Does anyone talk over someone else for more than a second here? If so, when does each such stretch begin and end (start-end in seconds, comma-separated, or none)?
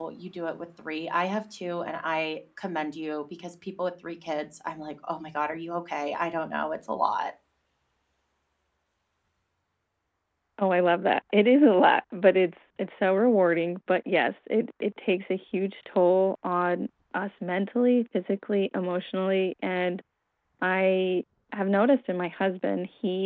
none